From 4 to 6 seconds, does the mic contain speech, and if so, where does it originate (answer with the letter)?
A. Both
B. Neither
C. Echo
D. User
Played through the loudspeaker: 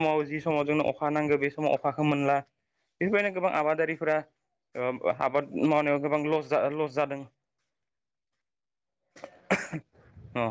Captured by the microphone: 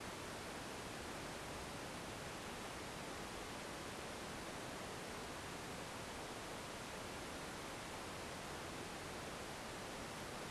B